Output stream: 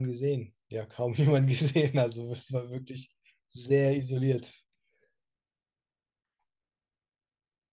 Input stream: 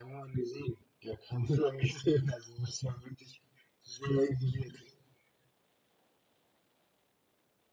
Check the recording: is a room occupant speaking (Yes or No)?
No